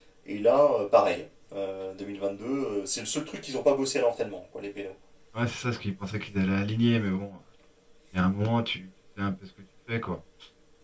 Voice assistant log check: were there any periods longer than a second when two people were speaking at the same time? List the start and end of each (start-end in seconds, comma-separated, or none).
none